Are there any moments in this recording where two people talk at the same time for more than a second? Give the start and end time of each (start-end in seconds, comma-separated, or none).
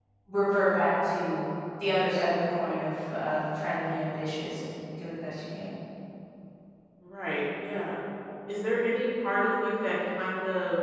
none